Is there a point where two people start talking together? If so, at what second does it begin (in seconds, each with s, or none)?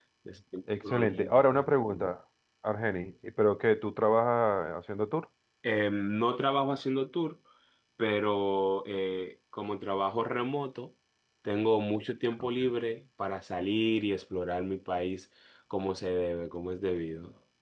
0.9 s